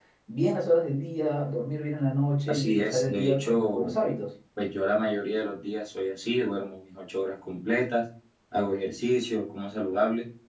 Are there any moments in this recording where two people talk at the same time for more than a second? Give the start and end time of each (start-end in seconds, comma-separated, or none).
2.5-3.9